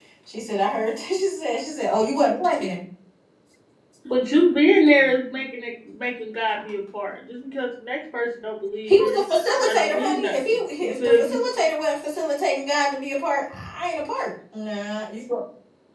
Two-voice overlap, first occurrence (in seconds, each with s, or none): 8.9 s